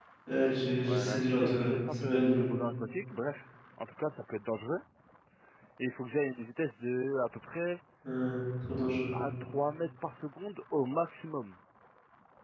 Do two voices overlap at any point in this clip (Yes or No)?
Yes